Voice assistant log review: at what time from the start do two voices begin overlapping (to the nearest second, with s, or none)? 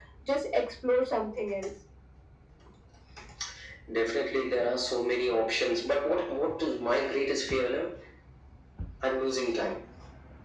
none